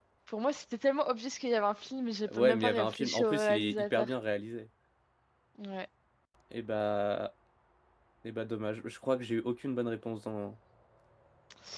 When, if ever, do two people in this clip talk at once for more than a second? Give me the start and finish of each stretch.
2.3-4.1

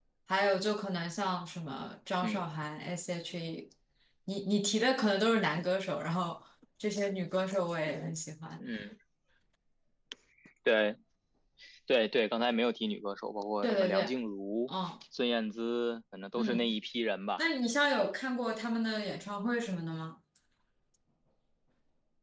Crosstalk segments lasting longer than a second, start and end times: none

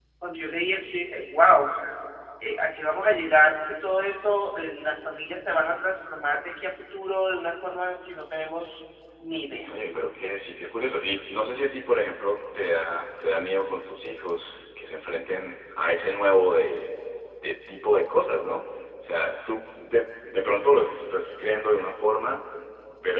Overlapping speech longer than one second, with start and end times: none

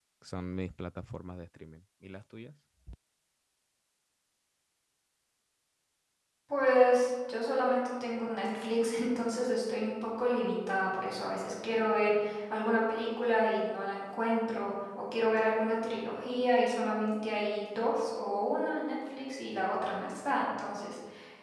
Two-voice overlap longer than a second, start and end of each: none

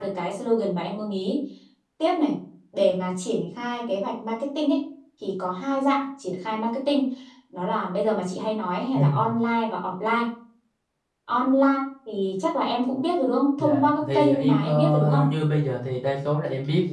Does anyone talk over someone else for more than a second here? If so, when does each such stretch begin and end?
13.6-15.2

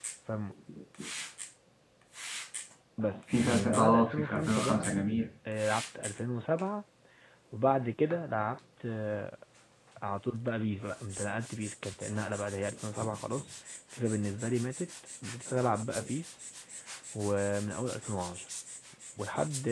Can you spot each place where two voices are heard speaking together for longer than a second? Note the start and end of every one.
3.3-4.9

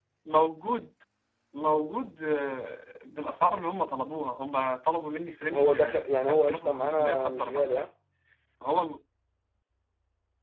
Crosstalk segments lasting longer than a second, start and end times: 5.5-7.9

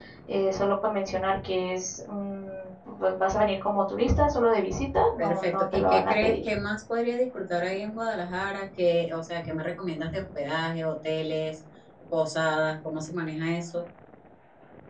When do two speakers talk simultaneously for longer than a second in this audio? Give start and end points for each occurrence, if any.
5.2-6.5

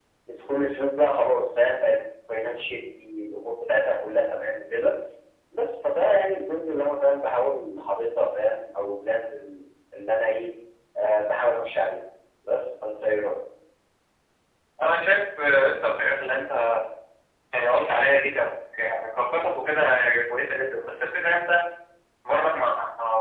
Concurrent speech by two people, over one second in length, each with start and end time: none

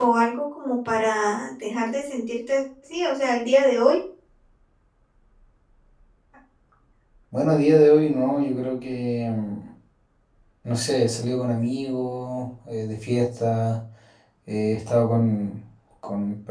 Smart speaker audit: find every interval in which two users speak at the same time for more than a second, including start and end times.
none

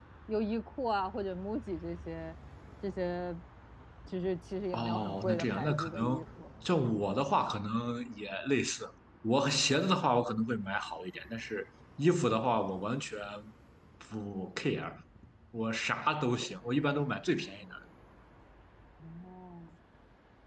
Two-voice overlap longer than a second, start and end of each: 4.7-6.2

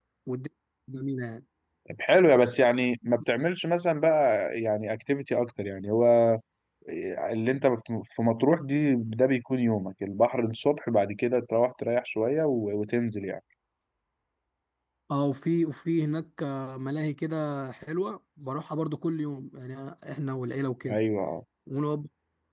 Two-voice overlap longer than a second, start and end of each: none

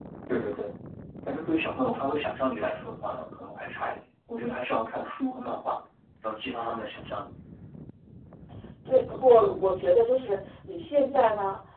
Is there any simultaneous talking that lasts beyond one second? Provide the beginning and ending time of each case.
none

